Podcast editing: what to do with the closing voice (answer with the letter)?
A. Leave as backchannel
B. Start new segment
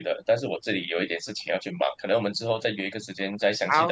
B